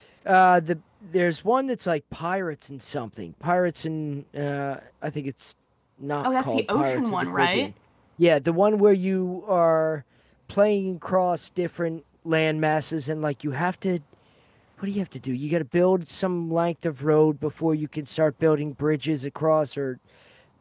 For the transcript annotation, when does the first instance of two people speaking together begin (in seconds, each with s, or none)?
6.2 s